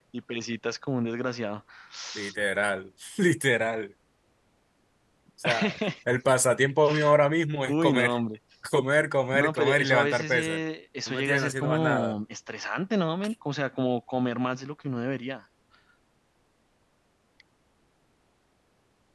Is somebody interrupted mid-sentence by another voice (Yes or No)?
Yes